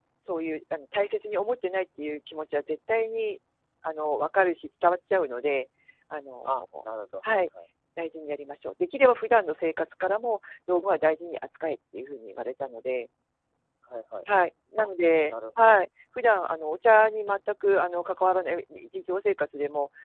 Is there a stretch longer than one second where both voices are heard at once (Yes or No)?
No